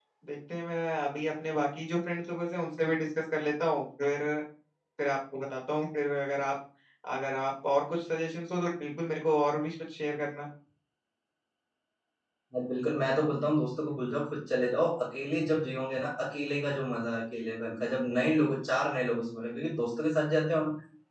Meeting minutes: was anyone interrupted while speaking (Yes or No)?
No